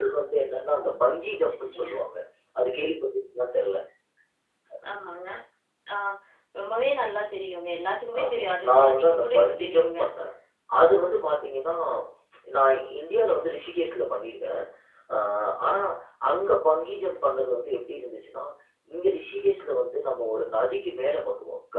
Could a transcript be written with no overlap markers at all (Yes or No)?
No